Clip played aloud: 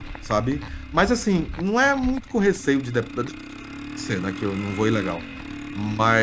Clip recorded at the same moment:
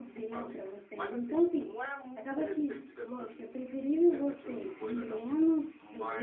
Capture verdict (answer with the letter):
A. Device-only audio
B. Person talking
B